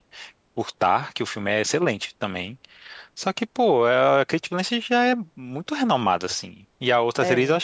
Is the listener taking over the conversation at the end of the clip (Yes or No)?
No